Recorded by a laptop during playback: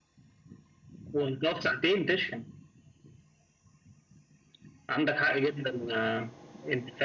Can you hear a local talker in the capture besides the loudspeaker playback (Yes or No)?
No